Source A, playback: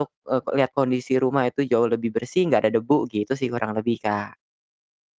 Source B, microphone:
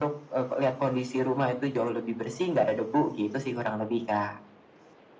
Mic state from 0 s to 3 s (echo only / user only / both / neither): echo only